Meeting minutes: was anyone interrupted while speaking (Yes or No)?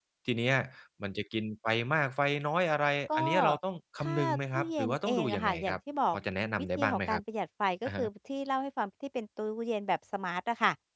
Yes